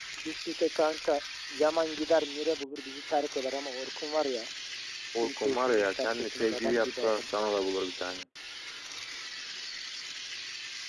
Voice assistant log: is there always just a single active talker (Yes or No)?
No